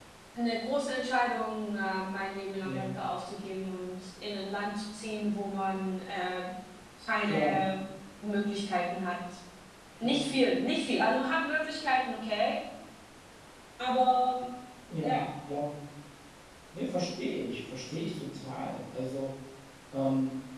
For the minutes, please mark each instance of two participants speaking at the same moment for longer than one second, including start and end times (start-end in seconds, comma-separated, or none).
none